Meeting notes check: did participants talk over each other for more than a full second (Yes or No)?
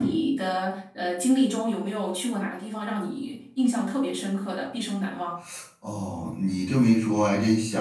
No